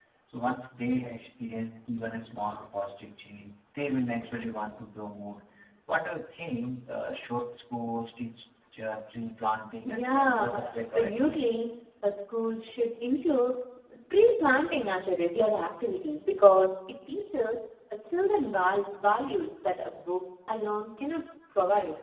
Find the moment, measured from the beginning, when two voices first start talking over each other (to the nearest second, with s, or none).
10 s